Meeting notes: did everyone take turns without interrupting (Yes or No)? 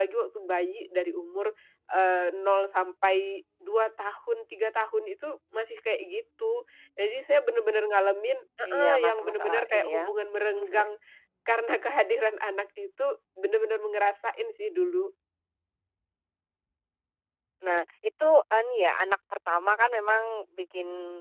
No